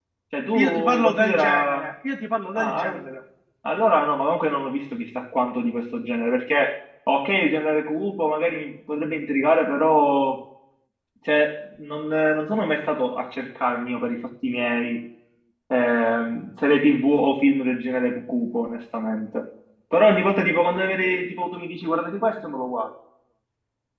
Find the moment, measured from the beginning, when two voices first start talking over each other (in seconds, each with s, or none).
0.5 s